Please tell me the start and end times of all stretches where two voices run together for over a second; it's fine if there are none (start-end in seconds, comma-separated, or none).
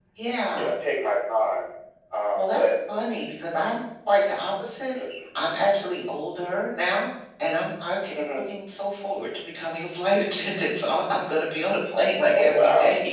none